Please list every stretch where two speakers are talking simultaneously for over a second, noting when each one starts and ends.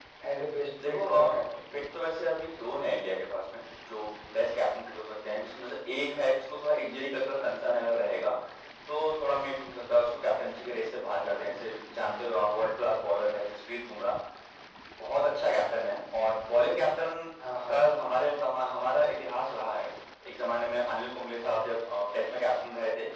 none

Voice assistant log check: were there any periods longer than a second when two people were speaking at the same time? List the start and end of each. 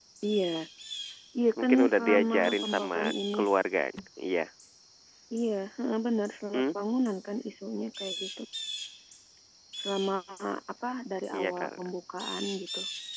1.6-3.0

